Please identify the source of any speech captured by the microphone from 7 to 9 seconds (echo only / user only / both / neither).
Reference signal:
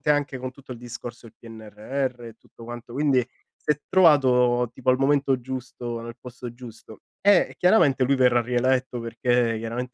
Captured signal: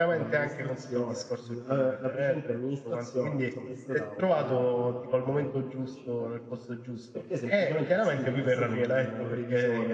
both